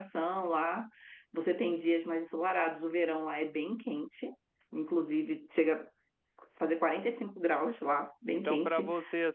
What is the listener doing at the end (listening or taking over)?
taking over